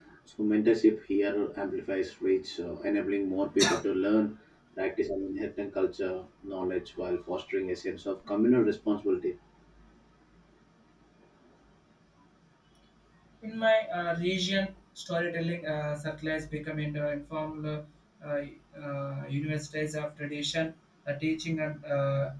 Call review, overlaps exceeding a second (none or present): none